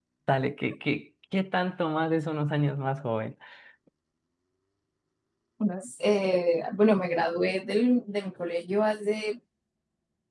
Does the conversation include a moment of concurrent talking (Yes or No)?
No